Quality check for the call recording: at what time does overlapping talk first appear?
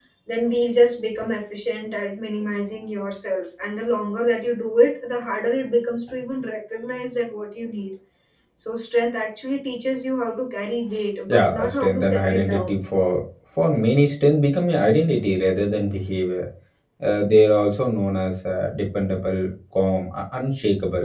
11.3 s

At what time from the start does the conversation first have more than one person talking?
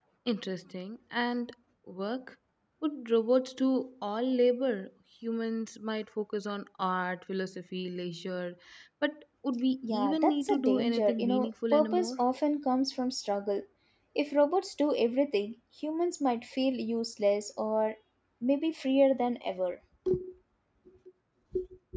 9.8 s

